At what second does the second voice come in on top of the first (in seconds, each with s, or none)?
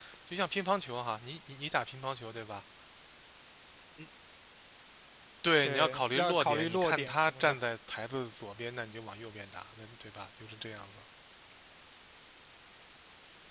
5.6 s